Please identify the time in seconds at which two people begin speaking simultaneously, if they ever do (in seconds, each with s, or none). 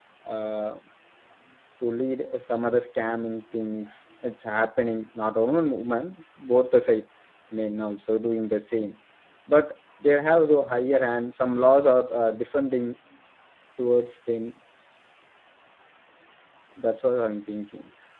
none